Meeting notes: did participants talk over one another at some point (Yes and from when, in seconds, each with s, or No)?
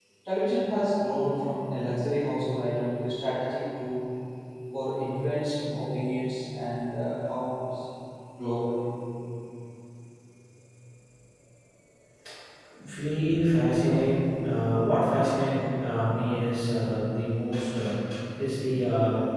No